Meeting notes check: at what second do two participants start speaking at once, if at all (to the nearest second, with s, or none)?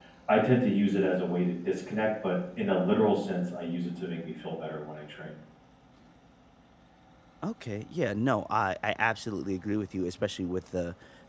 none